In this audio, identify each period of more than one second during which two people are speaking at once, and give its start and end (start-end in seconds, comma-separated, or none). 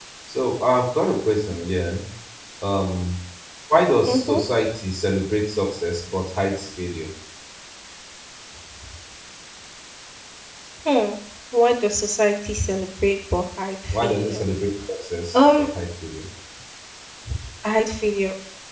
none